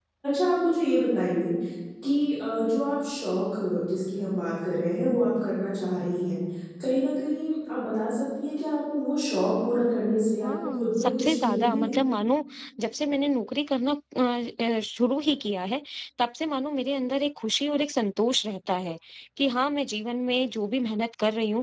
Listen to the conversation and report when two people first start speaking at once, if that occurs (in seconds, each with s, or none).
10.4 s